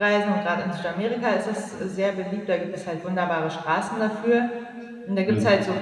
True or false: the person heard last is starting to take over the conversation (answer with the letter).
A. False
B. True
A